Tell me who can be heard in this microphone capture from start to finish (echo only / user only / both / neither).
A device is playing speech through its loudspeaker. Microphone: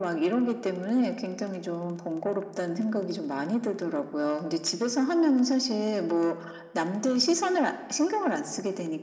echo only